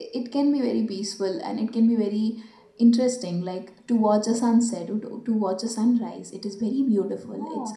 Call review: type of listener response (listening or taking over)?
taking over